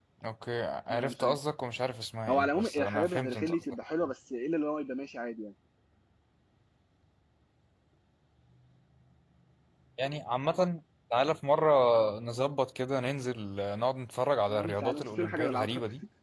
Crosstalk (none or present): present